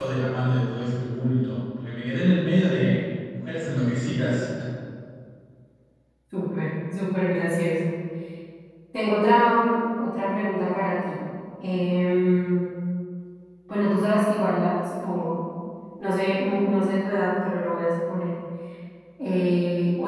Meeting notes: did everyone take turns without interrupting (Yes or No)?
Yes